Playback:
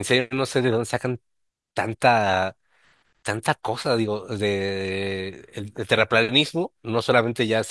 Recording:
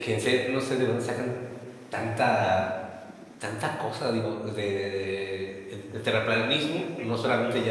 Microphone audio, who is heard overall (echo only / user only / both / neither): both